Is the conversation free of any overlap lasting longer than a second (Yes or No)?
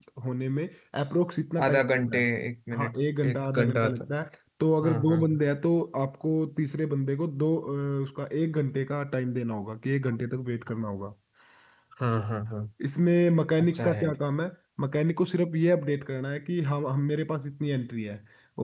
No